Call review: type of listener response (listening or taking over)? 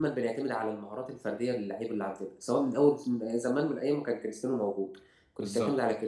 listening